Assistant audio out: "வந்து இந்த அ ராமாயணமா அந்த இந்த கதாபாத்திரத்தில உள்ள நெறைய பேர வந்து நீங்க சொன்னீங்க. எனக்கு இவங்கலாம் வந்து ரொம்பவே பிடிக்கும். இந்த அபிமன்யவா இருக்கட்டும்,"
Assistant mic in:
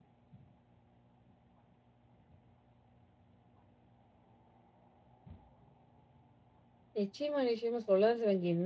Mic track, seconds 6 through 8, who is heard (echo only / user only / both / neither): user only